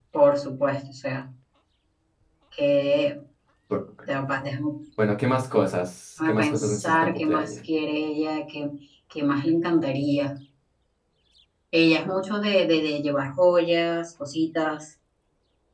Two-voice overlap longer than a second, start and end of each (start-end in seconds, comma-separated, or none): 6.2-7.6